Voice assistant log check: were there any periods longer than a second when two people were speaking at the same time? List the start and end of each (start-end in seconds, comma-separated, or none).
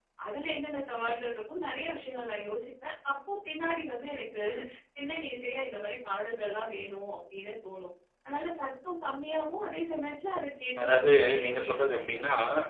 10.8-12.2